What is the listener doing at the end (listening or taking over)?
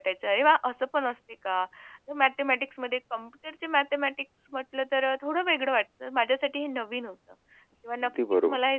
listening